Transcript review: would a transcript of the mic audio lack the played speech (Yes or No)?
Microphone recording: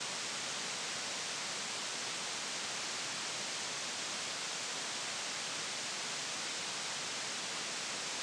Yes